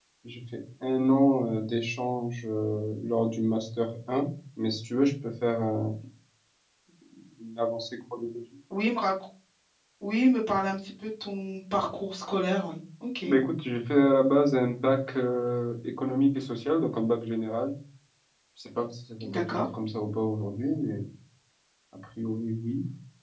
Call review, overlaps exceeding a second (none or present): none